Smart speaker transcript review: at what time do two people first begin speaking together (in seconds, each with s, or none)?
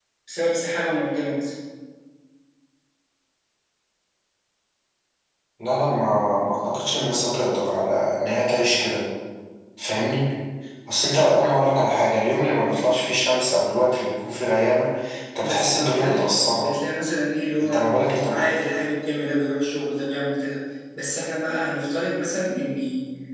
15.4 s